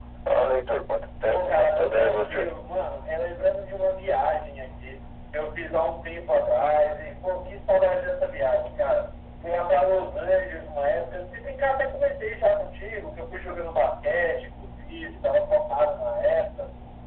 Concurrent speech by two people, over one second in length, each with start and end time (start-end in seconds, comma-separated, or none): 1.3-2.5